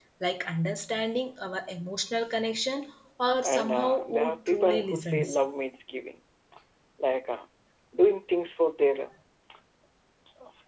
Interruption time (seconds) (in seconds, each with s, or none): 3.4 s